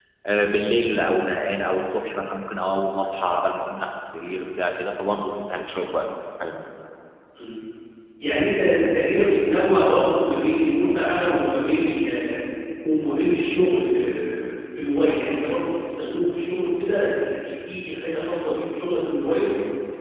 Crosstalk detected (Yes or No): No